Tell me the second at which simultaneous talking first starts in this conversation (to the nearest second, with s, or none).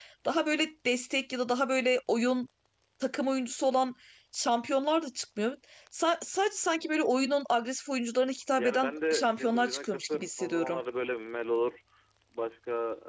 9 s